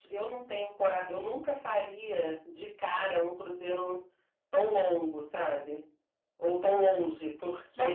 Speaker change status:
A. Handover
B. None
A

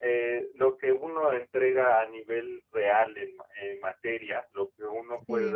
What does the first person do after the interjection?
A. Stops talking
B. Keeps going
B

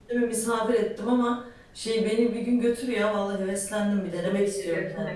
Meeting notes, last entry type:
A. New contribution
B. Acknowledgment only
A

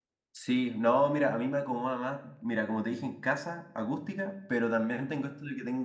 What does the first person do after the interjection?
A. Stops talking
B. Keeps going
B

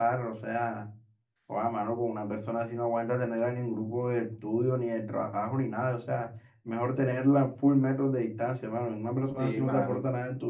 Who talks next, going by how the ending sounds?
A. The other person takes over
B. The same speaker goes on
B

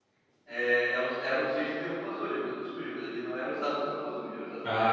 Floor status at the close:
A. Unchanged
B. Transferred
B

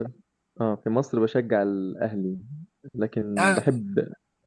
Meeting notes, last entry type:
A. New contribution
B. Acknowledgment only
B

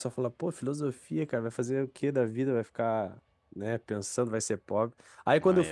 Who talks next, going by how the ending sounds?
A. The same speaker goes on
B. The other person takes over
A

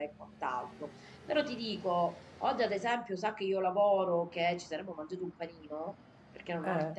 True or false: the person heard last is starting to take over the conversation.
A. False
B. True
A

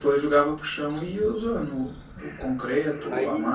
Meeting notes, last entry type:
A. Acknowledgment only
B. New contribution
B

